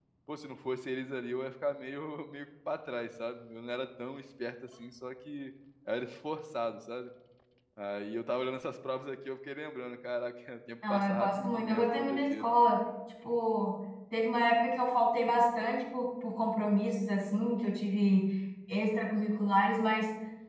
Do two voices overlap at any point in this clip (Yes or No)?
Yes